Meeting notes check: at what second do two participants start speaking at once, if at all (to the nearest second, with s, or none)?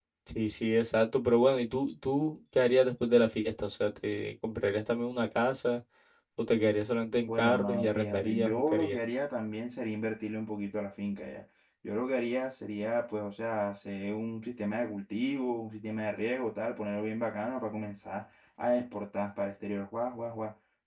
7 s